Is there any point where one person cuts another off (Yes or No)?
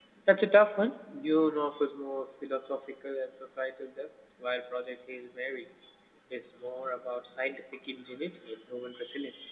No